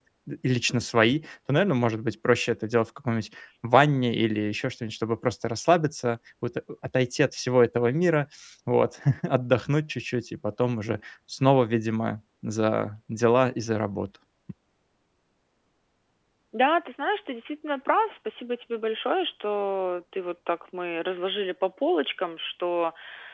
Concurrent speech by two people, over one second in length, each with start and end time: none

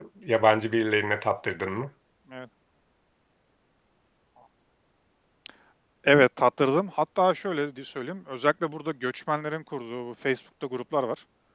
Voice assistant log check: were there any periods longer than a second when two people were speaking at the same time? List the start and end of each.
none

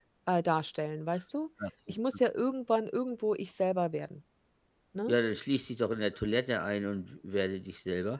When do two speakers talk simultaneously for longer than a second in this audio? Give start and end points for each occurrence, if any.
none

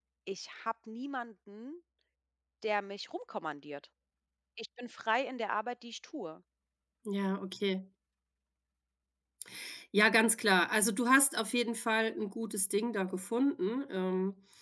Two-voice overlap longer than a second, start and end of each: none

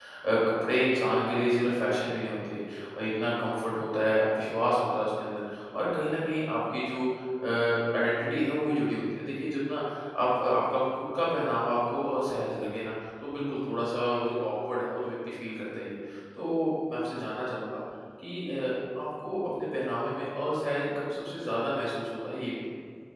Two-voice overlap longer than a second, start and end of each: none

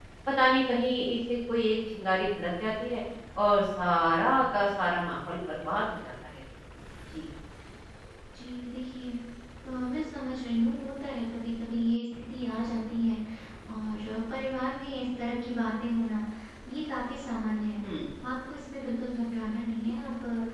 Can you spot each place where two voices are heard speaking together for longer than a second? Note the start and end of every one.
none

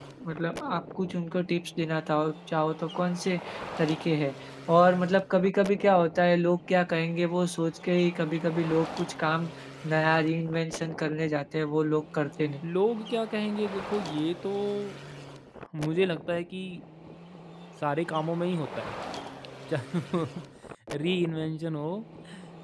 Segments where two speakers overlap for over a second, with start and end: none

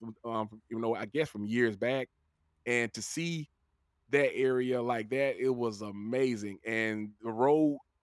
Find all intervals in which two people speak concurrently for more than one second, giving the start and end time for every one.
none

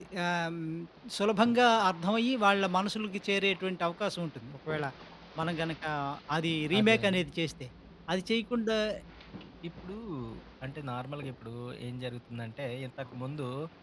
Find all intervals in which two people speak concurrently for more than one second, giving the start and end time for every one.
none

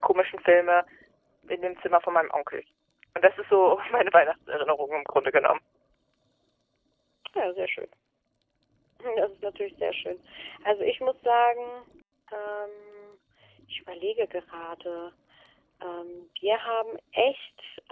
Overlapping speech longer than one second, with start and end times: none

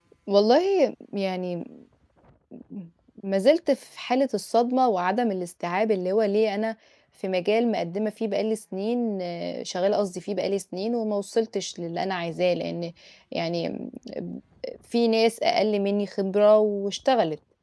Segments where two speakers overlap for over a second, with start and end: none

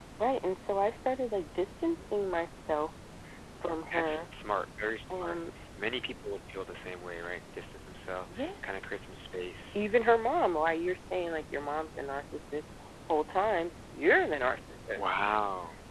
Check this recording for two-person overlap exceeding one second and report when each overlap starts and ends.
none

